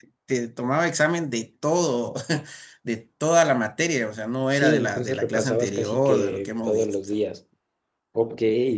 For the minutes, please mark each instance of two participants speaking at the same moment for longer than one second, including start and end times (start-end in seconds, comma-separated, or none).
4.5-7.0